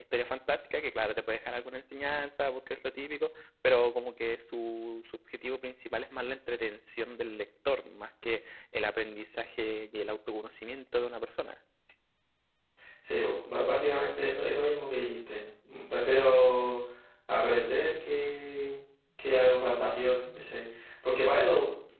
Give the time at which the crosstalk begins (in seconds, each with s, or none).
none